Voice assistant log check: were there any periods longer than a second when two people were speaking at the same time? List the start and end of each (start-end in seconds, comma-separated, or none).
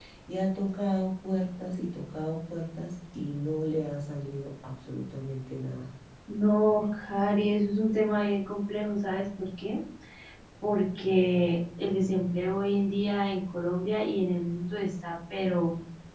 none